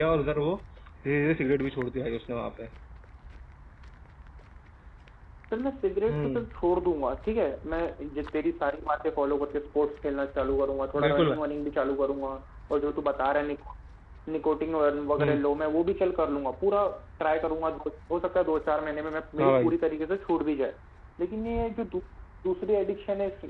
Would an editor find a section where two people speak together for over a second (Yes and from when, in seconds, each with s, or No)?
No